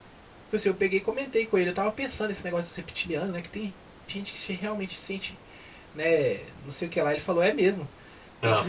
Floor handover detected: No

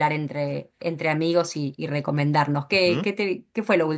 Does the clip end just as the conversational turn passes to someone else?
No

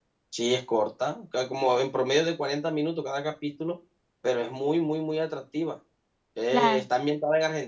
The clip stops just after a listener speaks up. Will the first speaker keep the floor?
Yes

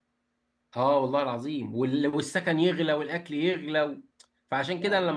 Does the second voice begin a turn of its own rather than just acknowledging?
No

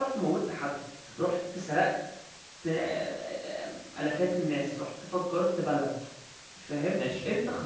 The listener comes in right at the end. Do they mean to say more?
No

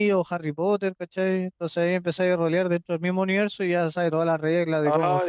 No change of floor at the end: No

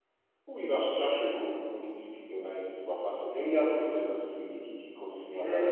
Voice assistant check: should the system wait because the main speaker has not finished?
No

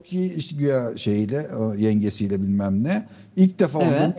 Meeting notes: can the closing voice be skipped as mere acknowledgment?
Yes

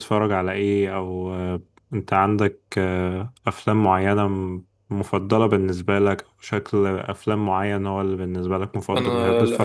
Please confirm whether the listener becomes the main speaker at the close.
Yes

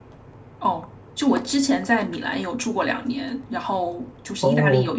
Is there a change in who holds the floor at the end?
No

